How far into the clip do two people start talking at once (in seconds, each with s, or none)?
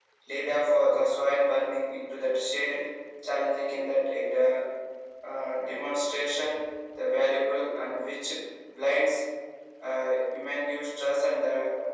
none